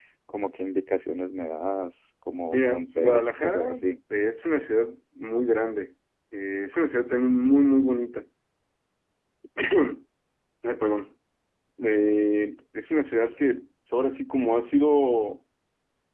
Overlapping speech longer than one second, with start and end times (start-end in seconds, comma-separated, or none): 2.5-3.9